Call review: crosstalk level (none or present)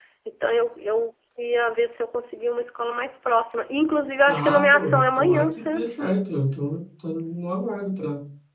present